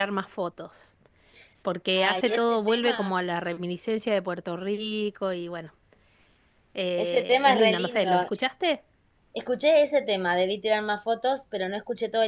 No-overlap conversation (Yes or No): No